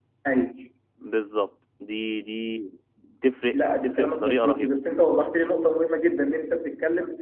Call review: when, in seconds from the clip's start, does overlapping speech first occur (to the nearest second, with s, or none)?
4 s